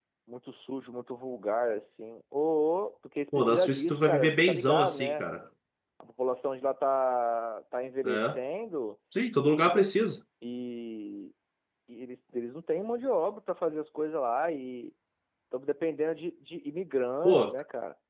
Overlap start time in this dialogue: 3.4 s

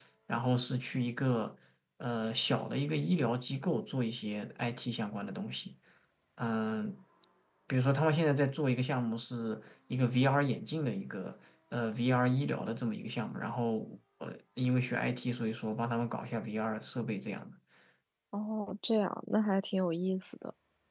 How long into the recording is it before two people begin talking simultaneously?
none

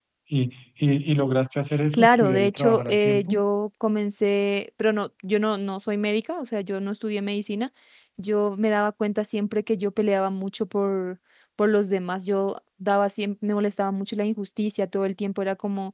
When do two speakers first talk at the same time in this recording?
1.9 s

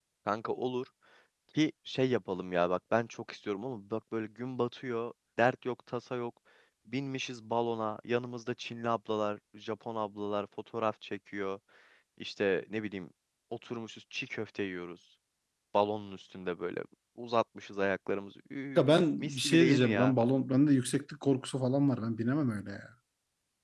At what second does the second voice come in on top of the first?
18.8 s

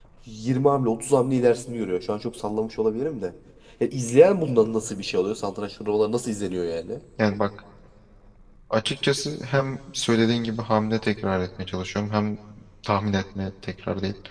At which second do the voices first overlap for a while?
none

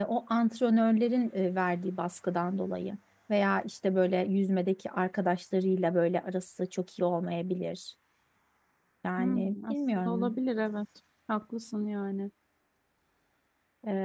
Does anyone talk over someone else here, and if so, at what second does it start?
9.2 s

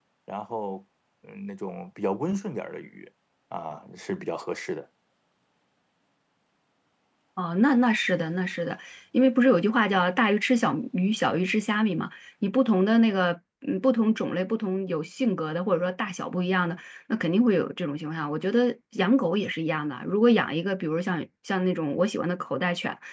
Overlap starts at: none

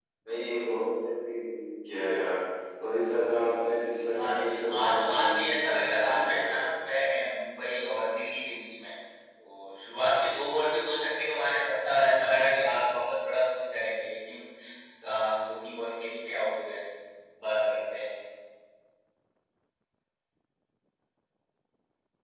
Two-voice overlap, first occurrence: 4.2 s

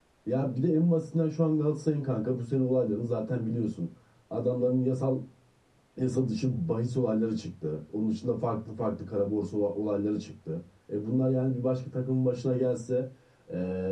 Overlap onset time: none

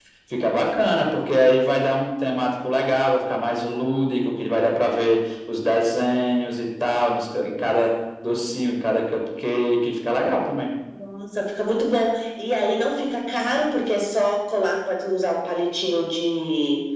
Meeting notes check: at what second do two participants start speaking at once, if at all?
none

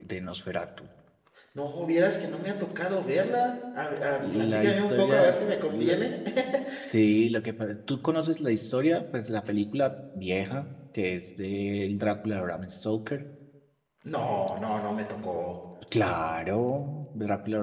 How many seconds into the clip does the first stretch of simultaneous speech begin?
4.2 s

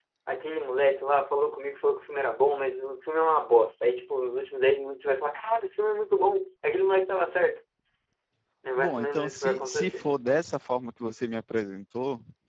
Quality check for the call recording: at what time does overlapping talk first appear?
8.8 s

